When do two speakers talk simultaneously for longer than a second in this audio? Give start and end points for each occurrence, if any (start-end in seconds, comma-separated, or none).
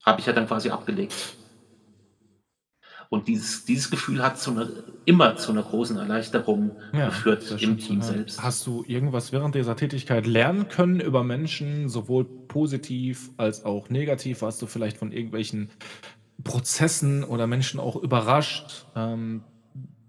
7.1-8.5